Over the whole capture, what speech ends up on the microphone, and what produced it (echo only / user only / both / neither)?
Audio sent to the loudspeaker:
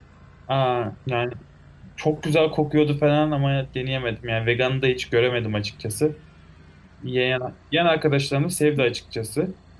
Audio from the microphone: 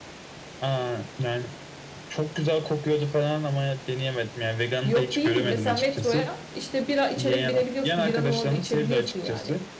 both